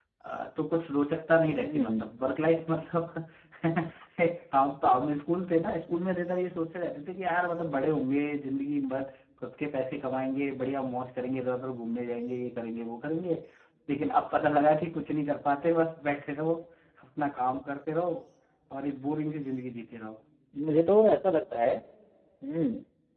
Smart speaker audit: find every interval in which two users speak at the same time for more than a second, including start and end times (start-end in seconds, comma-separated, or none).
none